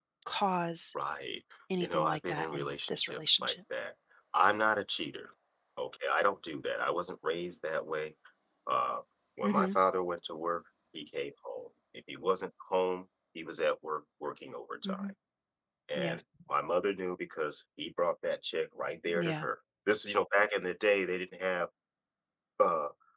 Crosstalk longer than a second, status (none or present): present